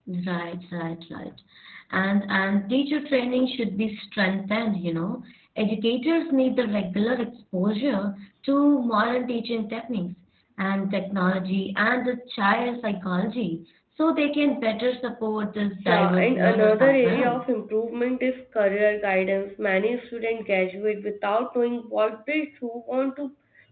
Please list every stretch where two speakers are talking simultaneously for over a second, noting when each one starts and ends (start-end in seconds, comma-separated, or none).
15.8-17.4